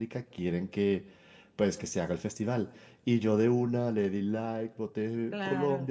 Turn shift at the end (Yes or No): No